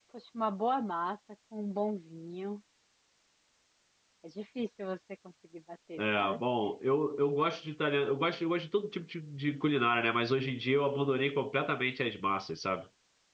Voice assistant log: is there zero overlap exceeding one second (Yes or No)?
Yes